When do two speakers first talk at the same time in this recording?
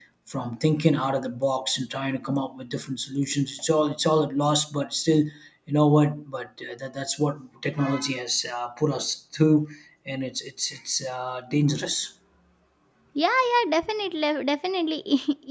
none

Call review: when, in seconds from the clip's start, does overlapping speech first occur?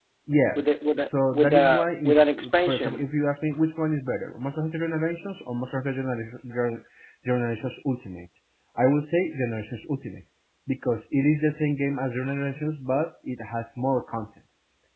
0.6 s

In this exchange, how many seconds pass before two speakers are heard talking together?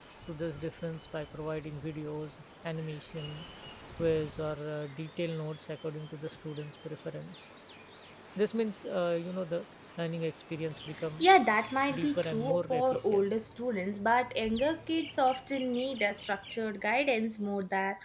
11.9 s

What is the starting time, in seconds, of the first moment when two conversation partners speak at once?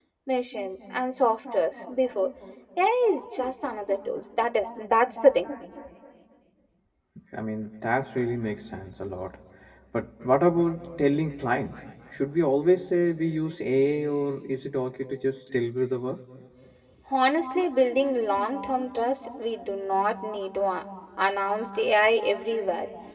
none

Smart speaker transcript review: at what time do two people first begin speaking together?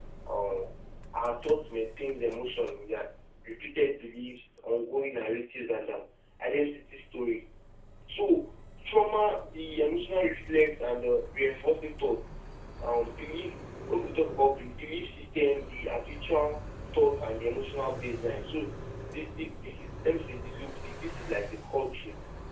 none

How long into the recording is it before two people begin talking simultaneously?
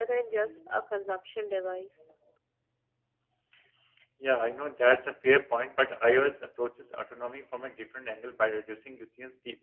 none

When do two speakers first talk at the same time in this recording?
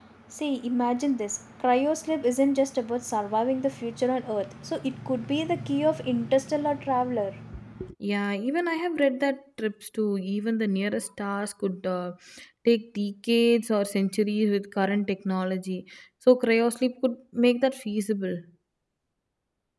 none

